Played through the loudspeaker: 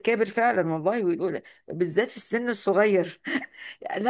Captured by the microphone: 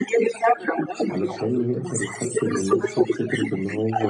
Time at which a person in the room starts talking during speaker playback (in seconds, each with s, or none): 1.1 s